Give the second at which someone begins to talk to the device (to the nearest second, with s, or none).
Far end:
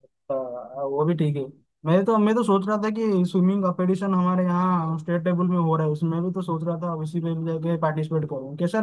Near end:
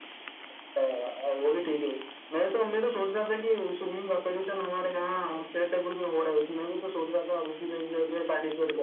none